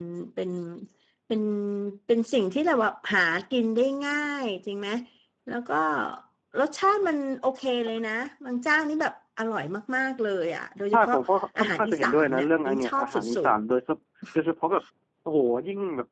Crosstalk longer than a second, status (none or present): present